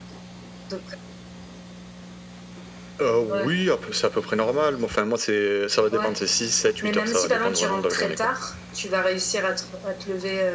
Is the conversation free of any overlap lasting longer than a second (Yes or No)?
No